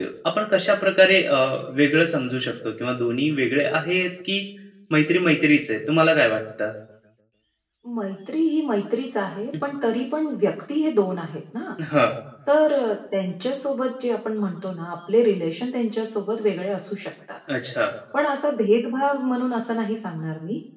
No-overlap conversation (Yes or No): Yes